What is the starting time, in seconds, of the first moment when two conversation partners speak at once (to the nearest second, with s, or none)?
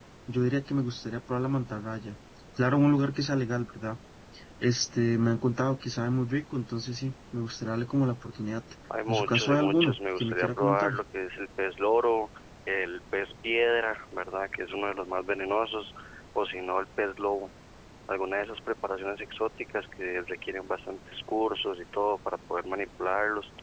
9 s